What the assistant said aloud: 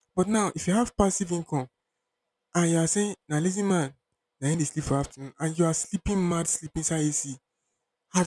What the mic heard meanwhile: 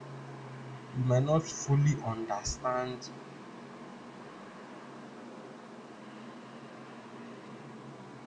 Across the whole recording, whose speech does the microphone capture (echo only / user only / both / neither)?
user only